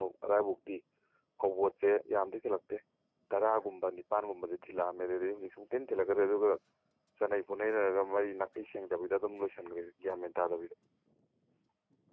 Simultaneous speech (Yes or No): No